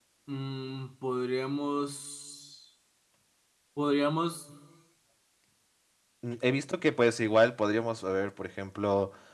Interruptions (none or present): none